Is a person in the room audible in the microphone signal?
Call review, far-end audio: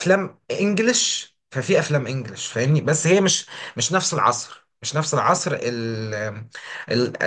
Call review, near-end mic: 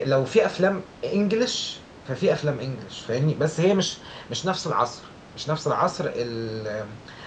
No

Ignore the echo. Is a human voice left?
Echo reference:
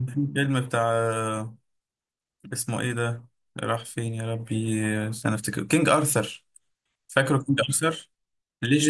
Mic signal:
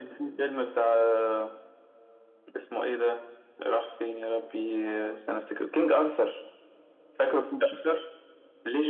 No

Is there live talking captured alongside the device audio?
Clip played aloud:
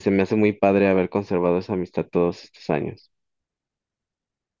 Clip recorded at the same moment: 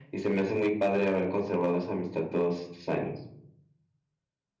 No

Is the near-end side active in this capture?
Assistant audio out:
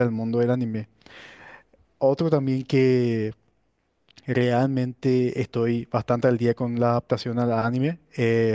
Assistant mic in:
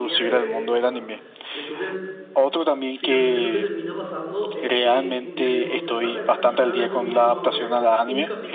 Yes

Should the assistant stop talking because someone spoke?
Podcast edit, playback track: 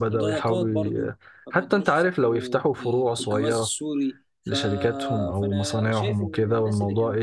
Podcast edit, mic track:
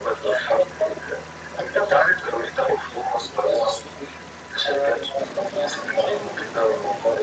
No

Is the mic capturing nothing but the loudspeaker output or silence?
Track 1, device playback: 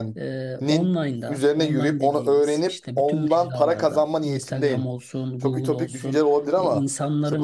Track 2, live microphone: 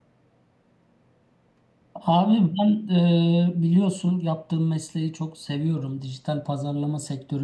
No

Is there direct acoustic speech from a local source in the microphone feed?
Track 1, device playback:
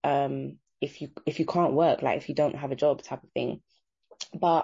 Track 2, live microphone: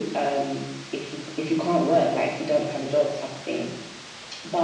No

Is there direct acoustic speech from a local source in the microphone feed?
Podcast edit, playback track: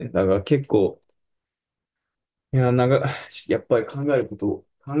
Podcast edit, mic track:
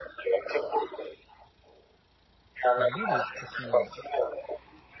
Yes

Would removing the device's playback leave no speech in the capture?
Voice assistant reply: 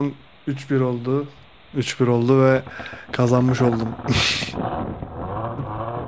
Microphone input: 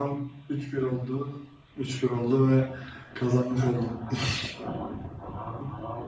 Yes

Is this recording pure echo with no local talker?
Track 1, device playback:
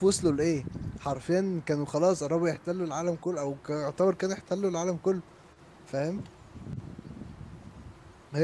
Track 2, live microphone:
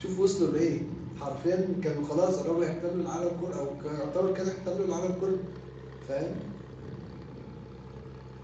Yes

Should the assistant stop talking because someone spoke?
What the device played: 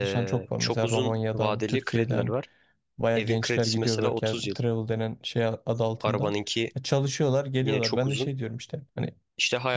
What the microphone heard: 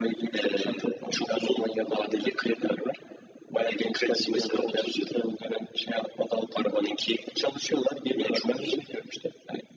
No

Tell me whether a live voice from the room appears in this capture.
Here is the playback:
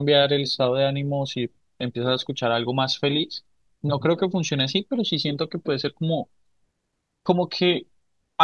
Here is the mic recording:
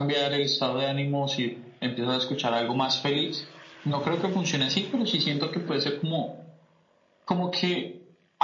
No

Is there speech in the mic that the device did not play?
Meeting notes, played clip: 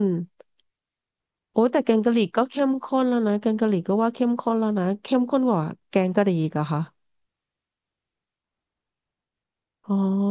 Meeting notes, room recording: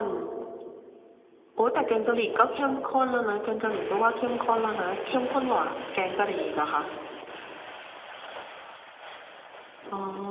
No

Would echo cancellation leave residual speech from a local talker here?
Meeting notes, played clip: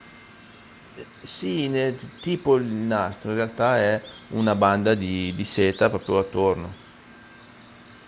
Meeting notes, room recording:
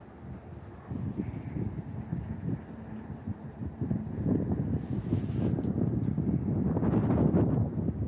No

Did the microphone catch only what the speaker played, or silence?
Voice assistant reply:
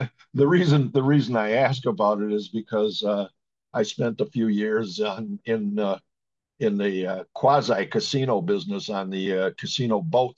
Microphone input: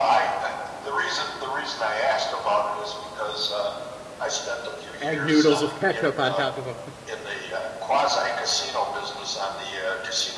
No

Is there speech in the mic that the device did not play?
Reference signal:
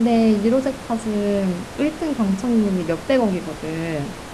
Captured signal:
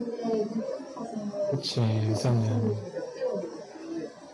Yes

